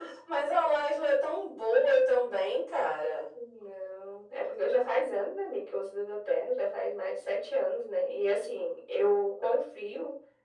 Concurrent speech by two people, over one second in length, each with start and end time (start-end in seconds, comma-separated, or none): none